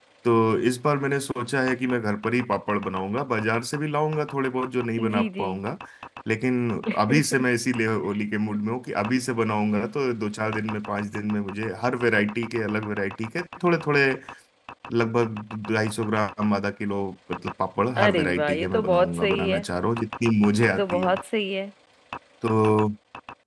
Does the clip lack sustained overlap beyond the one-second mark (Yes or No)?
No